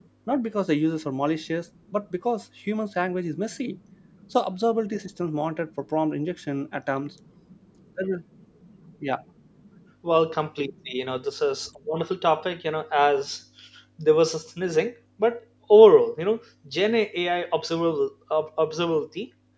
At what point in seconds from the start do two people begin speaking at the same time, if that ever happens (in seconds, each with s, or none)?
none